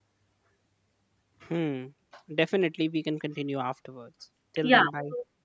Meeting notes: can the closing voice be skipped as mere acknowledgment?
No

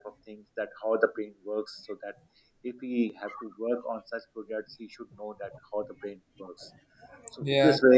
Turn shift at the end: No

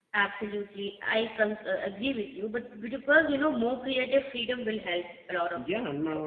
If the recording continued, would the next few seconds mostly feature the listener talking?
Yes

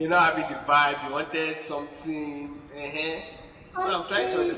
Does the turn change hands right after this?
Yes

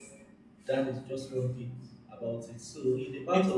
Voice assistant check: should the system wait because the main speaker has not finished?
Yes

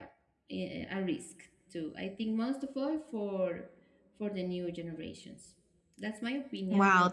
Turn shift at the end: Yes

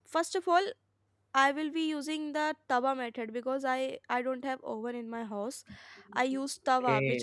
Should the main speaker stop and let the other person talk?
No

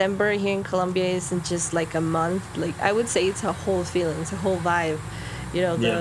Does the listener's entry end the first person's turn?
No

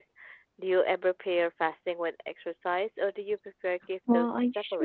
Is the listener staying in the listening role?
No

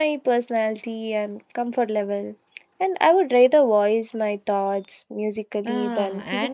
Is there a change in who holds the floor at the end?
Yes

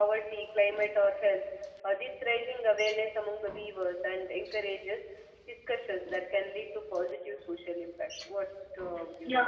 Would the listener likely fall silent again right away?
No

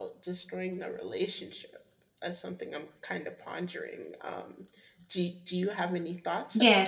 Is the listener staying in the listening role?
No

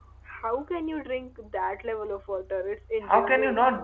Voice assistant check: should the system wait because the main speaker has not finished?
No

